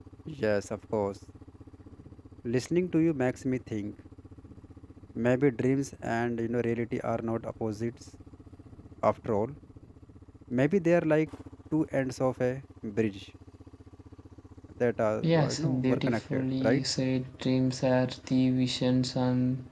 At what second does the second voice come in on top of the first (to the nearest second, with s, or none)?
15 s